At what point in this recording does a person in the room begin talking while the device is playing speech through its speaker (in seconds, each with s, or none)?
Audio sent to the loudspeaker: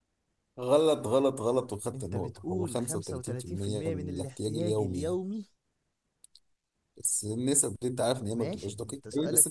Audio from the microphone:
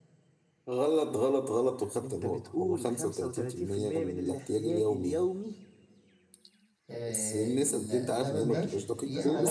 6.9 s